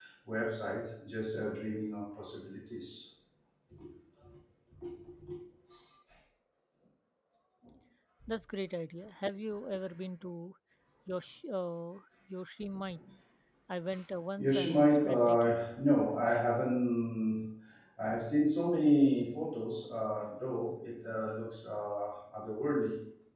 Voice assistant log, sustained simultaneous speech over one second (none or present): present